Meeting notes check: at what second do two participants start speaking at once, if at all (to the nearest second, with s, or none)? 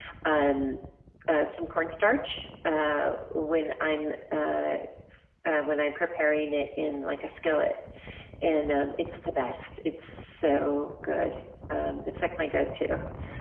none